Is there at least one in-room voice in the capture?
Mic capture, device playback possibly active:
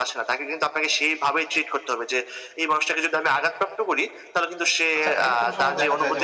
Yes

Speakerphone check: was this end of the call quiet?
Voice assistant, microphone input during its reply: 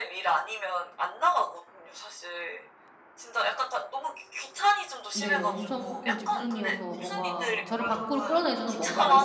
No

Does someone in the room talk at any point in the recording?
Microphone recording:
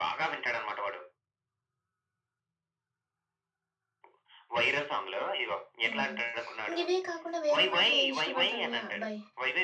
Yes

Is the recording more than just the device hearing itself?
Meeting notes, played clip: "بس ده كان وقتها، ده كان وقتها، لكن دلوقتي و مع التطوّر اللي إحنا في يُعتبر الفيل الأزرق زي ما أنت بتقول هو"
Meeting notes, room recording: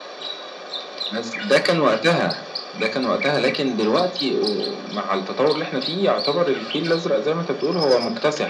No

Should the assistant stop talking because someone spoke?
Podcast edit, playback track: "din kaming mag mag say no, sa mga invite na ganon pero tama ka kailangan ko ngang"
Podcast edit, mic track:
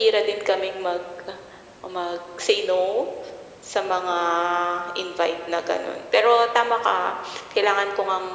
No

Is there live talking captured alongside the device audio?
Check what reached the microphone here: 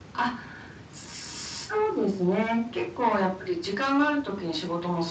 No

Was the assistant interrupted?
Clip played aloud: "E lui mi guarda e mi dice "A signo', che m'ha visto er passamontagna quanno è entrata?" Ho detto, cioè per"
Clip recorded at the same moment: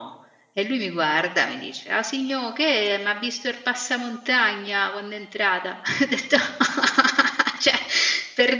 No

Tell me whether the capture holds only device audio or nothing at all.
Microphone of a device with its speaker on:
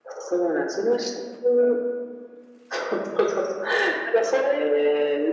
Yes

